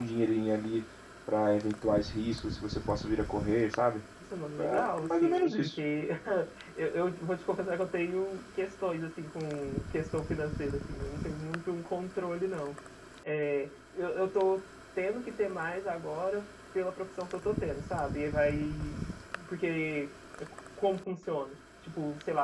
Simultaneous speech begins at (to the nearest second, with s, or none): 5 s